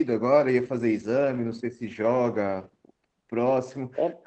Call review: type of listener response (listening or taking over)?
listening